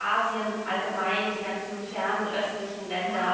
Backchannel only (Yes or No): No